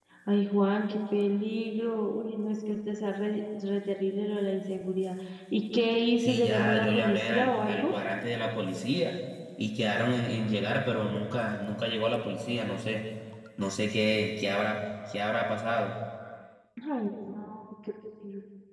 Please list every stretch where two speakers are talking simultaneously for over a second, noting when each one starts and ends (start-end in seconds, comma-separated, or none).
6.2-7.9